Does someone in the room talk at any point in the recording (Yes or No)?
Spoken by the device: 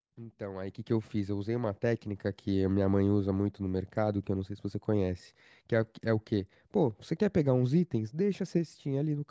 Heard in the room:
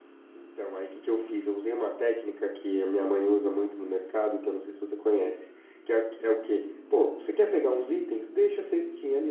No